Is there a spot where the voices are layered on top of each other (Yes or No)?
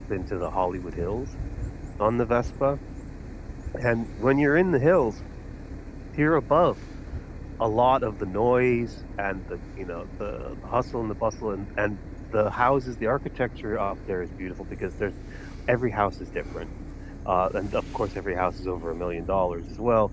No